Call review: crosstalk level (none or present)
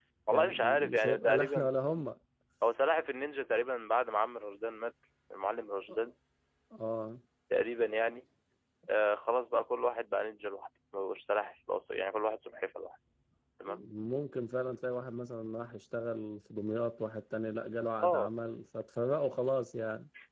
present